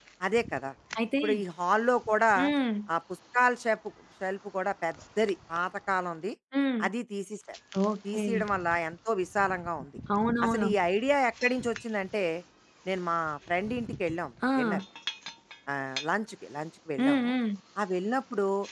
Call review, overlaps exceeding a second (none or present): none